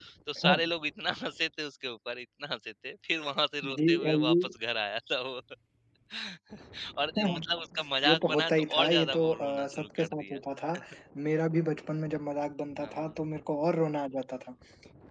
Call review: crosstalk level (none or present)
present